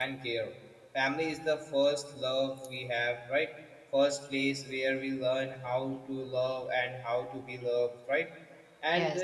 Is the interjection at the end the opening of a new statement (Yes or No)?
No